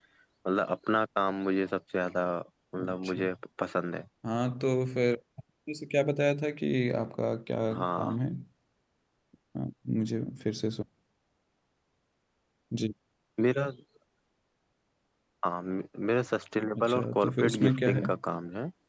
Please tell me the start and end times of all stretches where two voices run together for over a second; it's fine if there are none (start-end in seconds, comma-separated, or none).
16.8-18.1